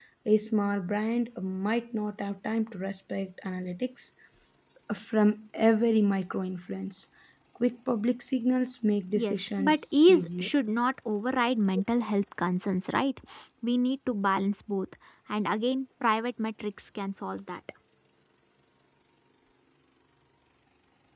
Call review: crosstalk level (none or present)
present